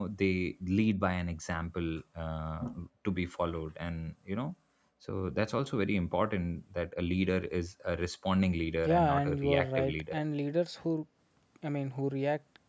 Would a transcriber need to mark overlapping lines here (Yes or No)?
Yes